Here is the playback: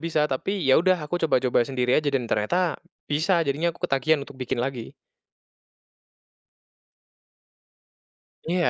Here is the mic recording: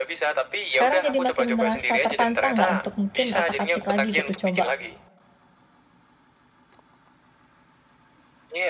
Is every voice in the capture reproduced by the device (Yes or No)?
No